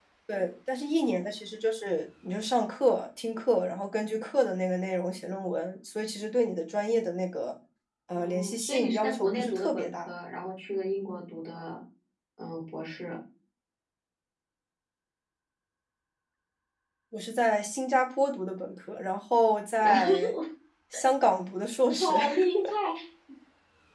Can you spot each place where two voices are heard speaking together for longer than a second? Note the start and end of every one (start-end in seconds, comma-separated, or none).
8.2-10.1